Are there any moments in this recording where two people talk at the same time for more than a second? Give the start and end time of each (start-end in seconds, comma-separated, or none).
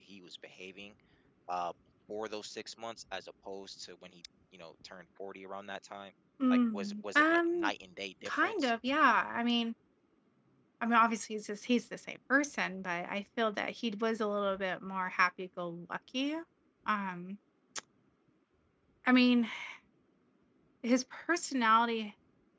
6.5-7.7